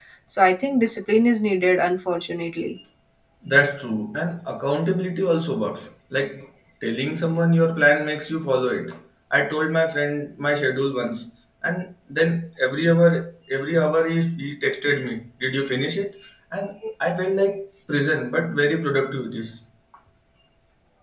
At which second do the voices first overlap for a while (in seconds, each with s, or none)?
none